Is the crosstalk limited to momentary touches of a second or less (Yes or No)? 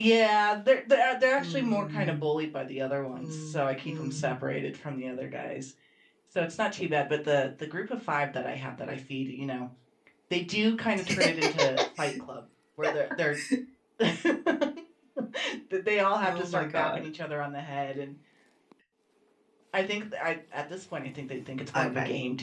No